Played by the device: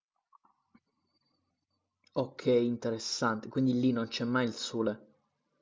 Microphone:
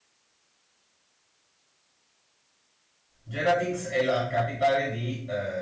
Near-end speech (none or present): present